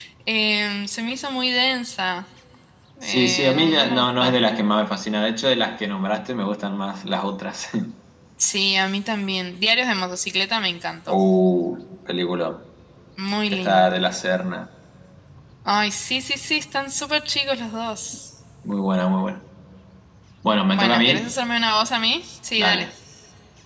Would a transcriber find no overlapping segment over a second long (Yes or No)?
No